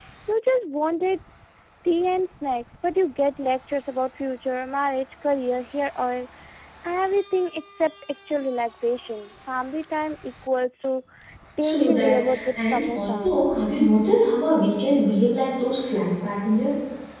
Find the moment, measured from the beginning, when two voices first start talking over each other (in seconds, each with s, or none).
11.6 s